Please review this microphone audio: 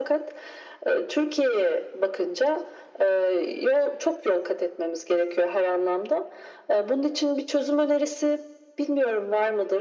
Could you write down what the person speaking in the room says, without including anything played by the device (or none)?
none